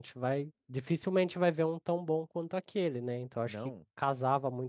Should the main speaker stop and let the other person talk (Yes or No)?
No